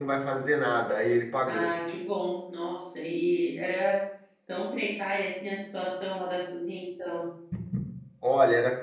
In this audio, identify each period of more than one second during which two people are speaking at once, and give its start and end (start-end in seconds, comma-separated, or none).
none